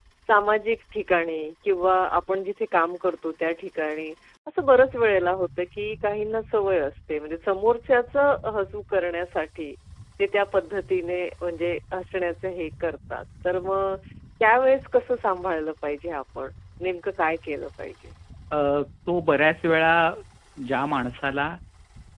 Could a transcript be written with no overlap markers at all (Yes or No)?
Yes